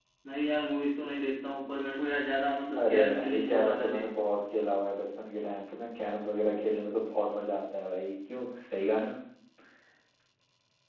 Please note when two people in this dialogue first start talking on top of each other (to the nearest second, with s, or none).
3 s